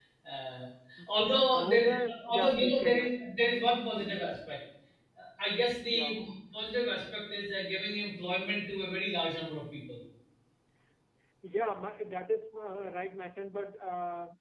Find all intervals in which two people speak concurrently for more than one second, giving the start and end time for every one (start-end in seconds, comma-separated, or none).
1.5-3.1